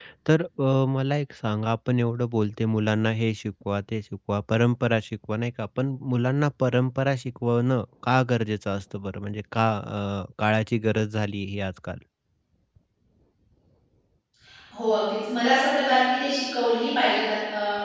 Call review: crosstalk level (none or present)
none